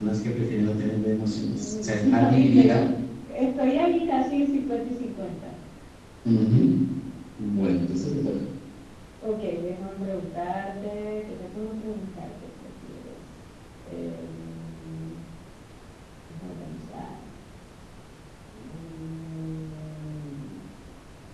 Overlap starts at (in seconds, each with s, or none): 1.5 s